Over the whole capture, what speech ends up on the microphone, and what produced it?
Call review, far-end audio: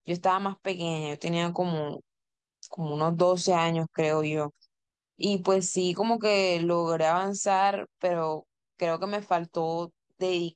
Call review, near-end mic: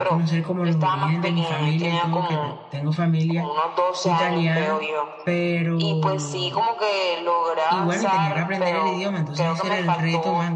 both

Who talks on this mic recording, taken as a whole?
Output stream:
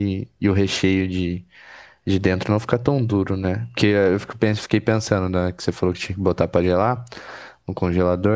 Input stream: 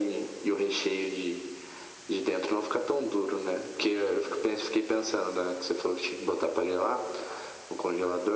echo only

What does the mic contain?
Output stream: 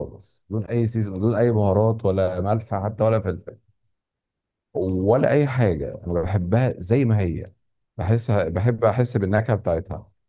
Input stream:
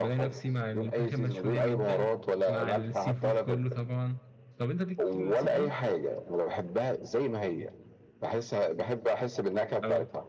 both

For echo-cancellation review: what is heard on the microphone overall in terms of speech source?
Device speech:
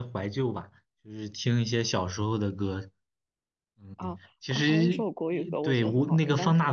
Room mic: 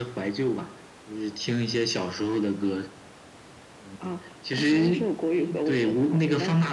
echo only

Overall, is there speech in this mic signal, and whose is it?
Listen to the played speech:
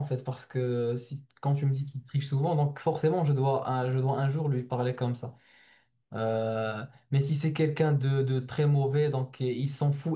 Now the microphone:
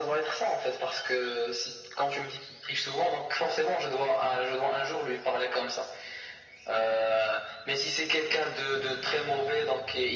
echo only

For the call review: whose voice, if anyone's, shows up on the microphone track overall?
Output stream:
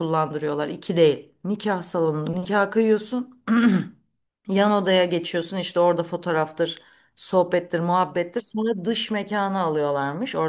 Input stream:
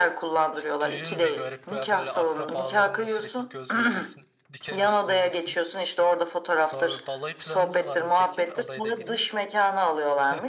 both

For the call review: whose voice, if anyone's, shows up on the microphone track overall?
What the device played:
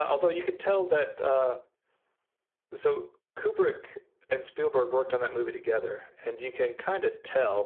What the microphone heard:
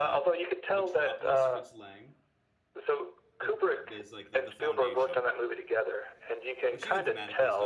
both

